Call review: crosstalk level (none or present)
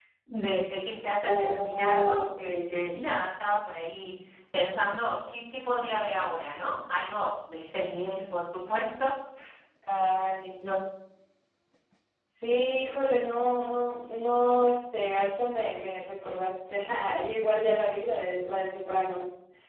present